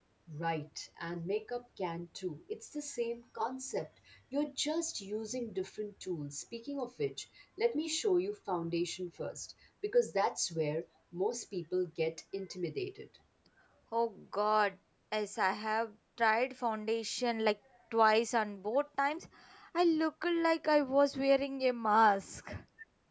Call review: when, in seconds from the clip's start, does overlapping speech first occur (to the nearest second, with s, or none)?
none